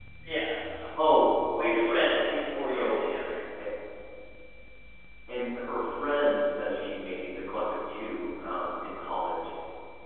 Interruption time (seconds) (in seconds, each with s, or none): 1.6 s